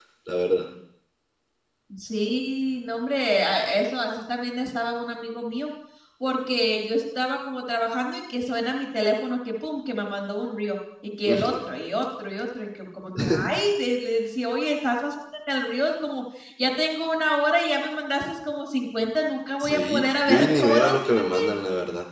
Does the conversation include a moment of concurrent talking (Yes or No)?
Yes